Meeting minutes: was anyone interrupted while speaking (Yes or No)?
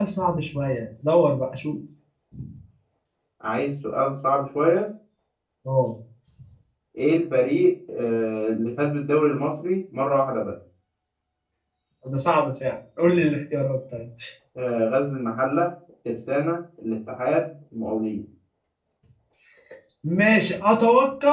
No